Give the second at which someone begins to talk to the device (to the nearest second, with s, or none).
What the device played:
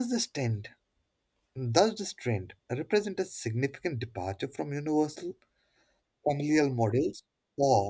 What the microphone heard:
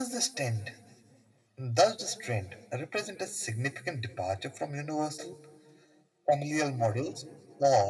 none